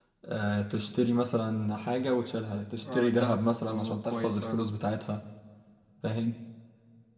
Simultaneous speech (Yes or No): Yes